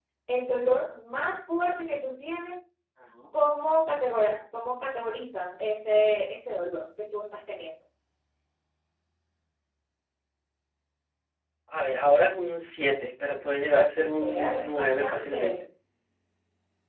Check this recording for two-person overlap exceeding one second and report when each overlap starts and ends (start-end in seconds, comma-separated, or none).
14.2-15.5